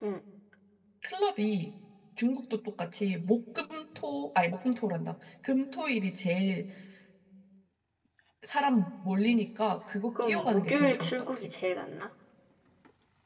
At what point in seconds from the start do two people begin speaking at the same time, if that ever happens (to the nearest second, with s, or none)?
10 s